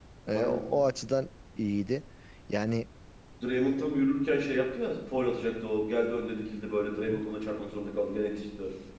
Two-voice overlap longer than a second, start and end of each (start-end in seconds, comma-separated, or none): none